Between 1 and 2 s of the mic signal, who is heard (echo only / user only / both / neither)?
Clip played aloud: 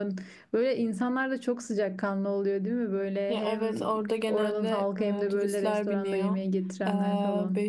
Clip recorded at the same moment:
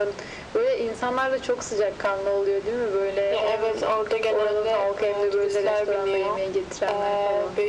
echo only